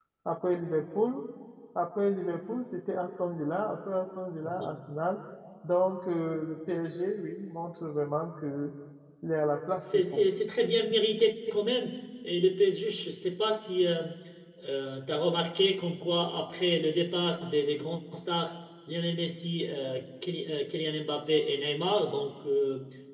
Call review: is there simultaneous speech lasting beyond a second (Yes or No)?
No